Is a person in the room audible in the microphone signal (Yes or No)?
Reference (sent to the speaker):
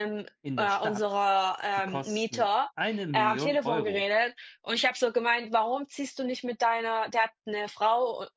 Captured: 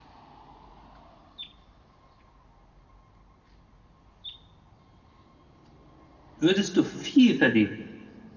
Yes